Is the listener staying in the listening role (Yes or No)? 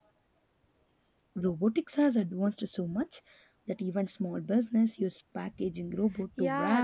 No